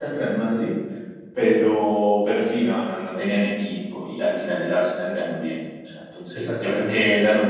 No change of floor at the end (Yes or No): Yes